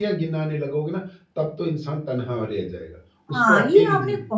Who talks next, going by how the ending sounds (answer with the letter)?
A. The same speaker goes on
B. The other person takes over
B